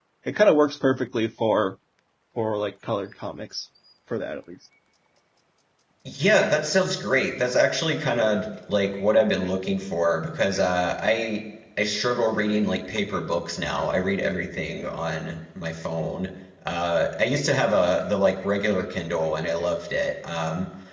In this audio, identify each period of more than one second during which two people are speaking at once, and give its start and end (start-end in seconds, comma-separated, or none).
none